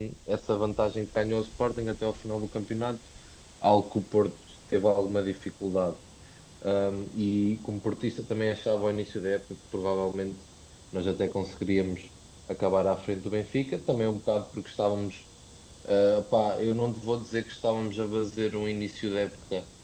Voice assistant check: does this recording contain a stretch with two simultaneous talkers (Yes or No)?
No